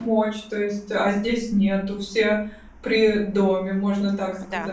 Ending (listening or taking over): taking over